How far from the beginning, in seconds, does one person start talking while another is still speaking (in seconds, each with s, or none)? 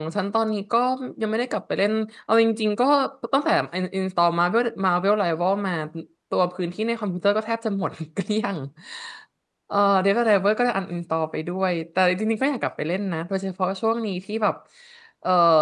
none